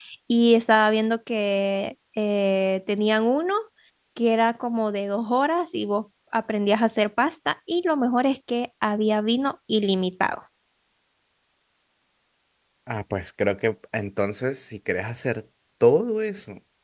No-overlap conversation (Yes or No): Yes